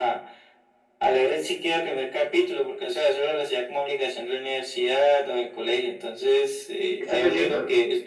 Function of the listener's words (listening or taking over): listening